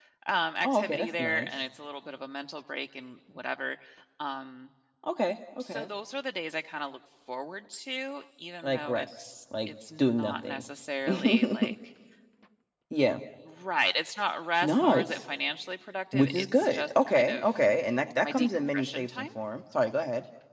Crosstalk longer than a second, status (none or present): present